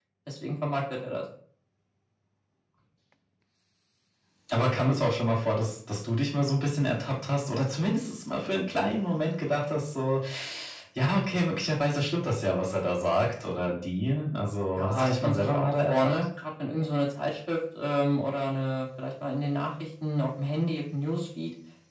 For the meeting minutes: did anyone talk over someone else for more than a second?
Yes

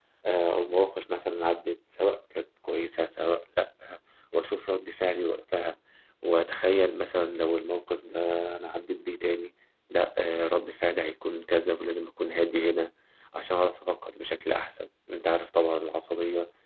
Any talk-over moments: No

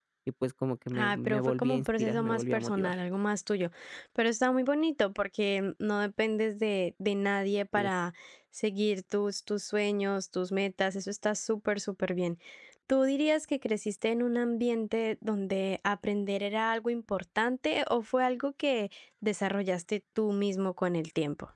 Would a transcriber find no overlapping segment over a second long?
No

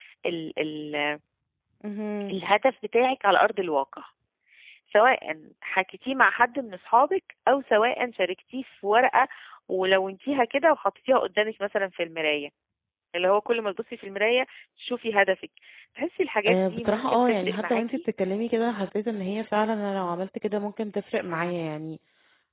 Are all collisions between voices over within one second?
No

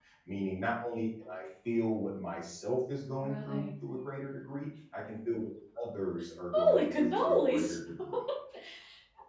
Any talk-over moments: Yes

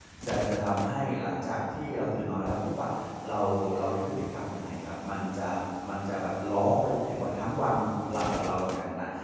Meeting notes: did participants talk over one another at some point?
No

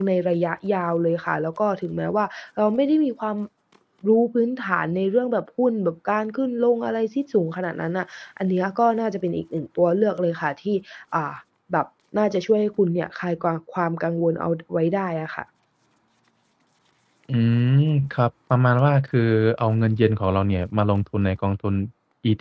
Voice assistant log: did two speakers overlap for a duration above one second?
No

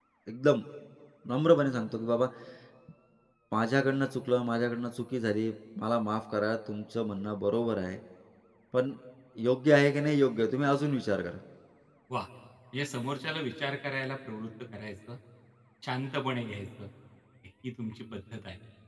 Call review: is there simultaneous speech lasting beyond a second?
No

